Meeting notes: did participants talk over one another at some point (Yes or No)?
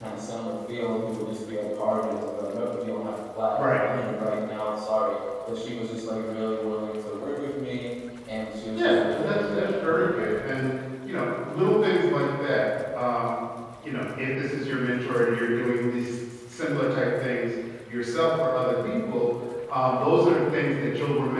Yes